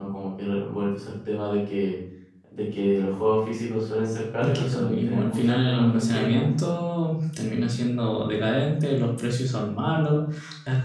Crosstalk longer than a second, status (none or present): present